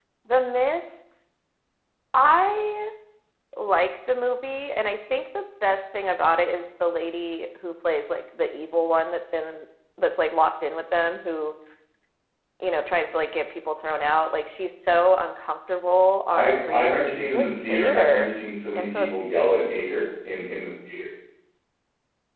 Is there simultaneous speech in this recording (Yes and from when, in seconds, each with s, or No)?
Yes, from 16.3 s